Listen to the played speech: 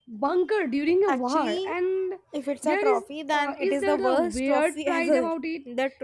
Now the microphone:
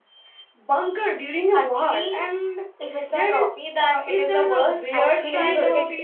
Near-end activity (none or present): present